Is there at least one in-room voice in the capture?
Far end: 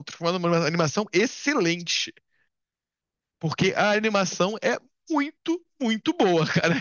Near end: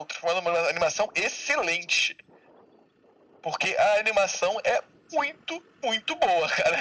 No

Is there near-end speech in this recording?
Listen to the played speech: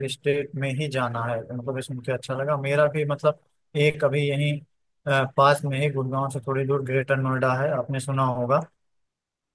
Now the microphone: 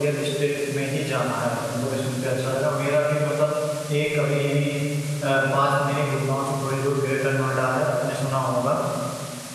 No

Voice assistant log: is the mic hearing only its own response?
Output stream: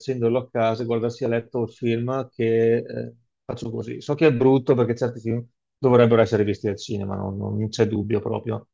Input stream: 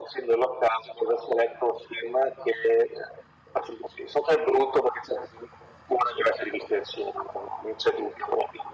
Yes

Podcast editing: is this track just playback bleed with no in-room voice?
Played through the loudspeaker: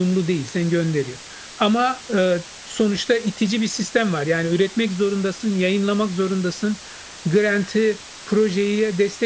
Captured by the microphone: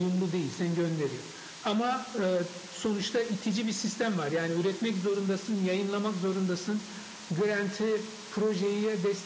Yes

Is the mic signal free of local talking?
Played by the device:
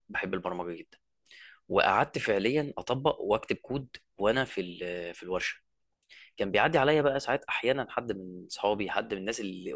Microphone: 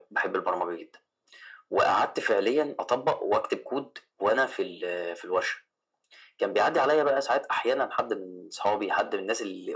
Yes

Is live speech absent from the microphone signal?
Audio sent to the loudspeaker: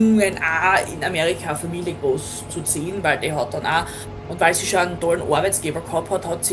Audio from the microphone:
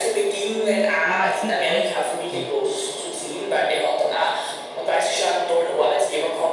No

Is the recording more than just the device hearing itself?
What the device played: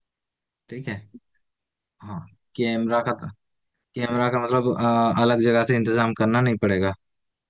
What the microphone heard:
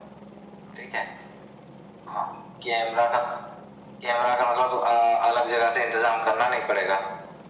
No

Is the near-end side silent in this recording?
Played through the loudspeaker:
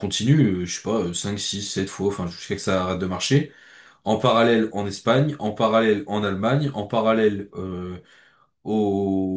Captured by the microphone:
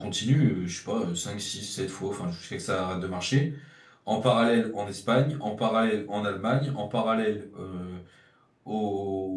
Yes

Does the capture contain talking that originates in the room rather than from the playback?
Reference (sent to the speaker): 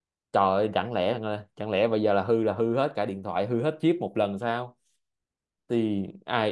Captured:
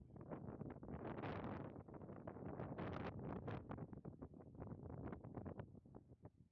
No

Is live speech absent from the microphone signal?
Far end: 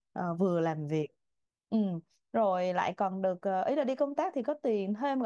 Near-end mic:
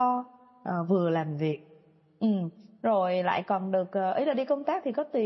Yes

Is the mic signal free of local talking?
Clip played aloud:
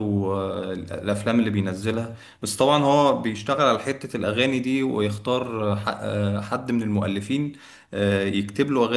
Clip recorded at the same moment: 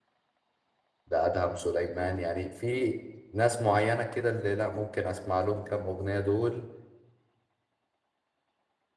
No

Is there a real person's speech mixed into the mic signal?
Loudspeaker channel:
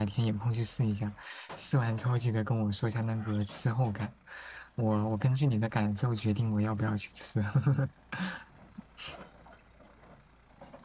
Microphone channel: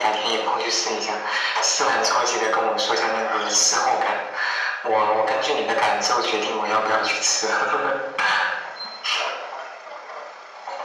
No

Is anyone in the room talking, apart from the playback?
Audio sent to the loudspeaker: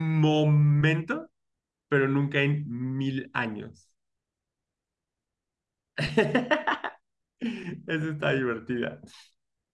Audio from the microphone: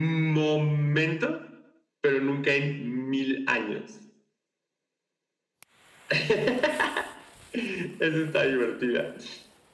No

